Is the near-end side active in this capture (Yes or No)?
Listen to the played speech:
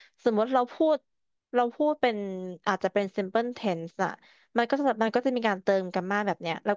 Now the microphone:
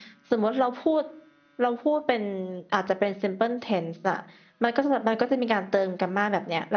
No